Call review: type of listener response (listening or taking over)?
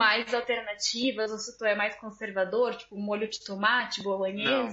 taking over